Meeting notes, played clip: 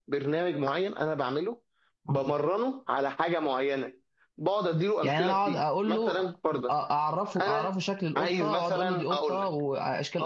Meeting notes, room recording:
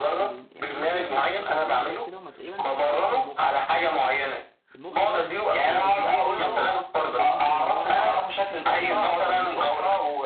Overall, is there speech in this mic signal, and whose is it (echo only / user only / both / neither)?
both